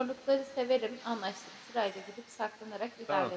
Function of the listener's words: taking over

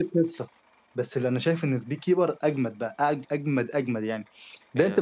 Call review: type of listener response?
listening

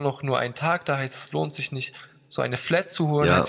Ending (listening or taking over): listening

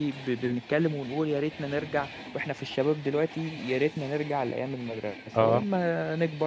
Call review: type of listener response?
listening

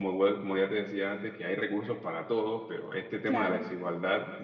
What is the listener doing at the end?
listening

